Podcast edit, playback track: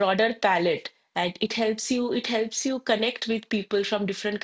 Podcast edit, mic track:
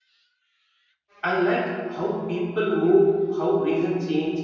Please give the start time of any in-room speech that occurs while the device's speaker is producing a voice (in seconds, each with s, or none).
1.2 s